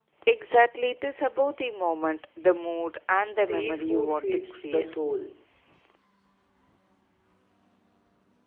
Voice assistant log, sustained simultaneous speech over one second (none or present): present